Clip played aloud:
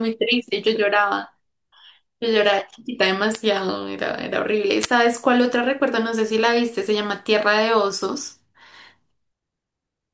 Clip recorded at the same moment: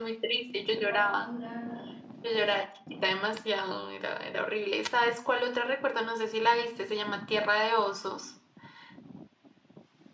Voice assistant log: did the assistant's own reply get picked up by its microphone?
Yes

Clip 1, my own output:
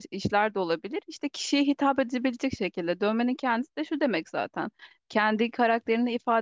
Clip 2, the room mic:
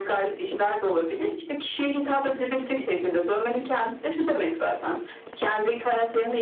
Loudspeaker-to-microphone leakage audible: Yes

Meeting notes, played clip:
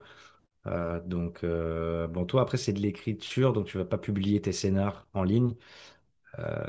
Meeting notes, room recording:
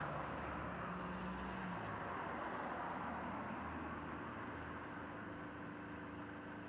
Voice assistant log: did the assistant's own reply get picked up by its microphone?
No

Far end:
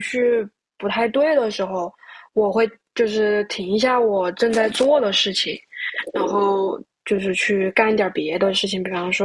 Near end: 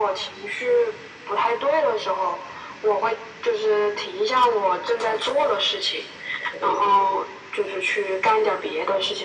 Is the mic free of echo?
No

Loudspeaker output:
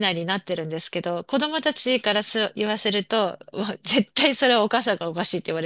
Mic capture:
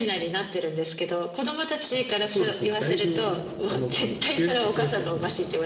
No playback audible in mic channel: No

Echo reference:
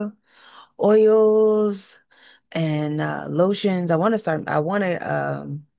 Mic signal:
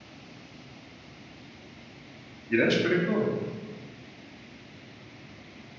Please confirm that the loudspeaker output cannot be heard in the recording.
Yes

